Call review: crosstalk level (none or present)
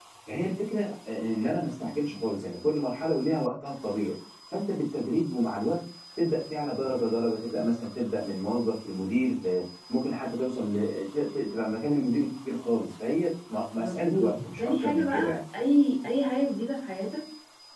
present